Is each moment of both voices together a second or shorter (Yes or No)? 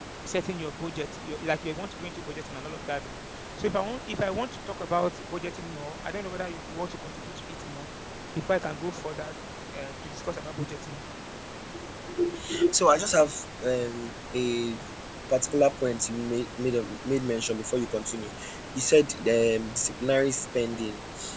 Yes